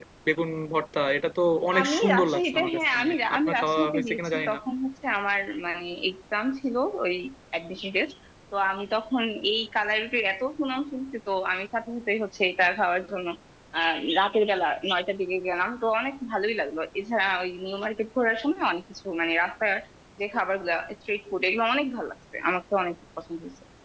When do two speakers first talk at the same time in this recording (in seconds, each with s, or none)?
1.7 s